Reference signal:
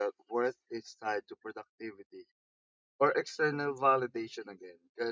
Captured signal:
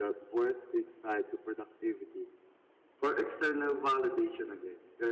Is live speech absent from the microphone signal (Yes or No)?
Yes